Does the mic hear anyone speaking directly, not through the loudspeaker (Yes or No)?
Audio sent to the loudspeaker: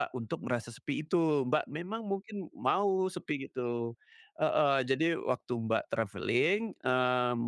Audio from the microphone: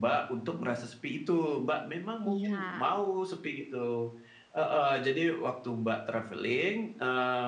Yes